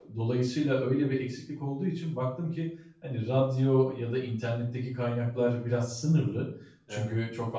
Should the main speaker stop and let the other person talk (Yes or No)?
No